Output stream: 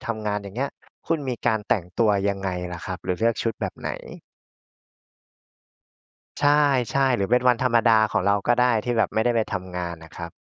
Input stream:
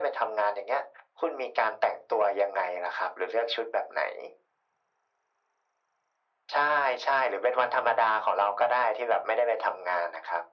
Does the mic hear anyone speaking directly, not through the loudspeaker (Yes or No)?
No